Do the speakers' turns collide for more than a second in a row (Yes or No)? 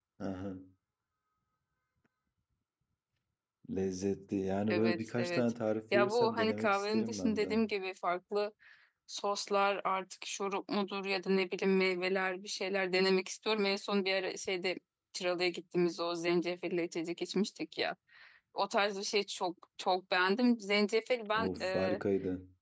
Yes